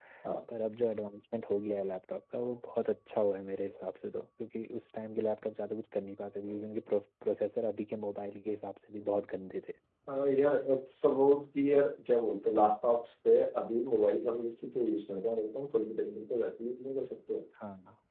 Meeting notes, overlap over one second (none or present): none